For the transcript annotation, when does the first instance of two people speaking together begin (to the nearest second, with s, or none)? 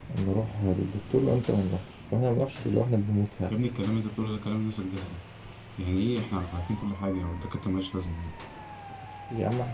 none